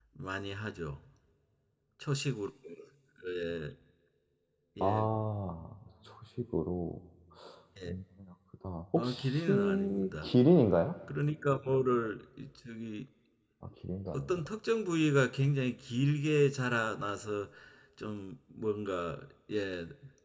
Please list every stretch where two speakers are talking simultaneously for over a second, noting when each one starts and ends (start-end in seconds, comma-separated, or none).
9.0-10.3